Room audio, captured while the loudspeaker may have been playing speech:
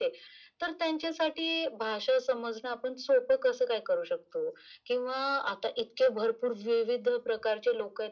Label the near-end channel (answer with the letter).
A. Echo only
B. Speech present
A